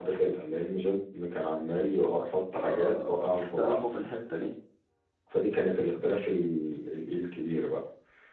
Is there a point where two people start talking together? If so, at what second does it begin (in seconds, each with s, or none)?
2.5 s